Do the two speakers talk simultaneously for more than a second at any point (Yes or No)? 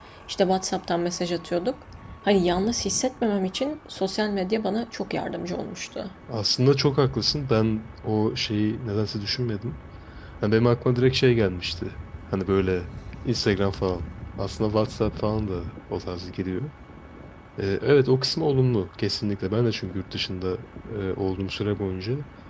No